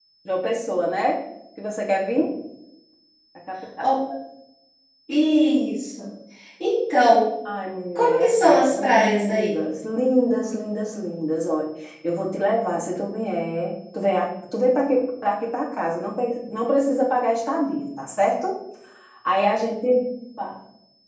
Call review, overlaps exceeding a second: present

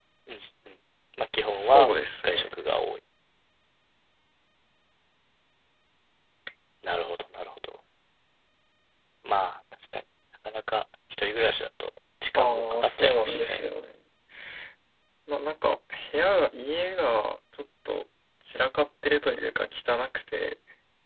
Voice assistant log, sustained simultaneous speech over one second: present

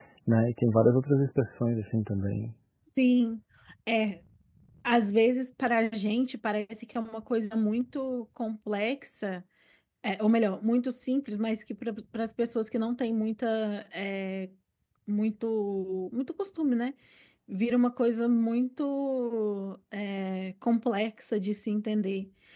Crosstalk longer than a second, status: none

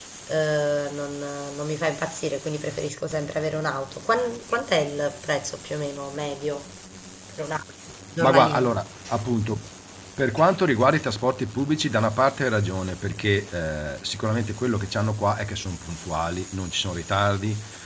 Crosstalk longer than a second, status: none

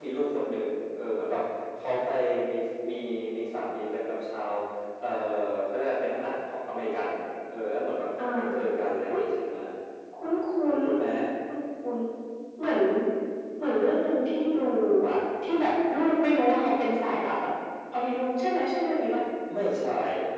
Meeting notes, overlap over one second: none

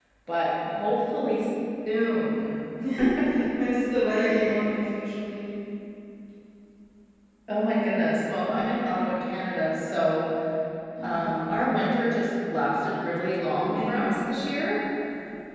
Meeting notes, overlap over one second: none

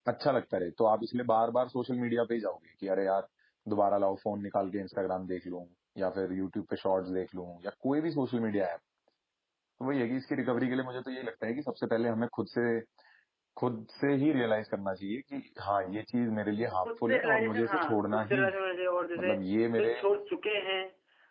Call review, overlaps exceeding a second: present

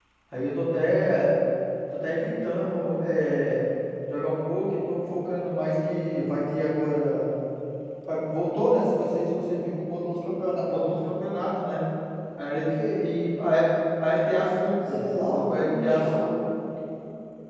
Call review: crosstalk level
present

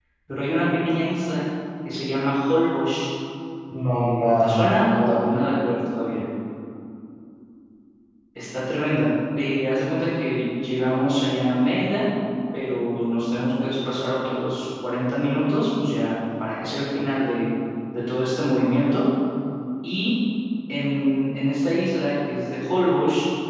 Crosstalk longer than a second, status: present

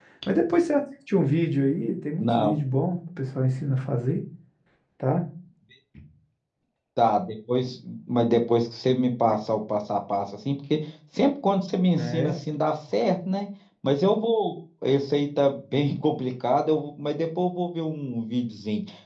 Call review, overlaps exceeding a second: none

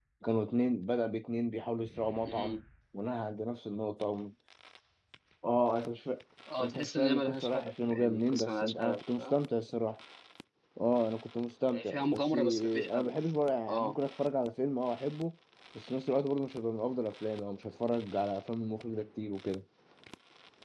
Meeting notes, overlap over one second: present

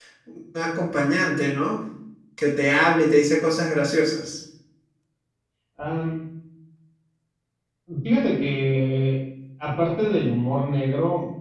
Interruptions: none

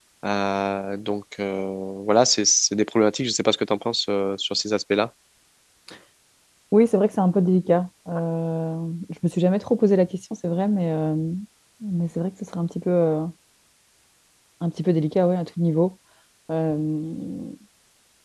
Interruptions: none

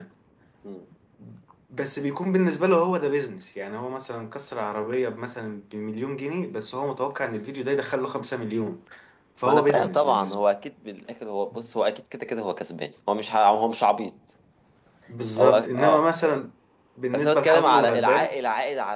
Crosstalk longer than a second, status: present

